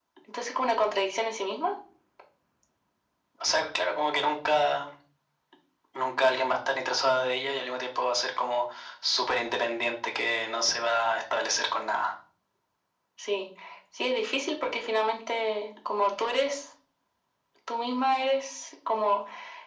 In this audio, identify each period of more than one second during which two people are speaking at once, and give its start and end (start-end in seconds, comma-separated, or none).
none